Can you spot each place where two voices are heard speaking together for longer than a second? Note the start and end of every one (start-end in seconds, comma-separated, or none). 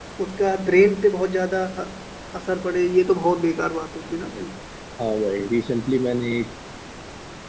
none